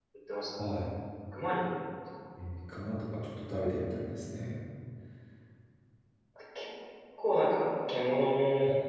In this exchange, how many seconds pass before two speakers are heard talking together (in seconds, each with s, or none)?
none